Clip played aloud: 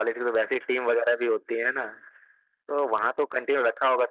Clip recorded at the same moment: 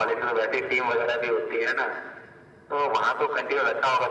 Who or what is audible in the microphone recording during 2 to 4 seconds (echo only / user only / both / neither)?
echo only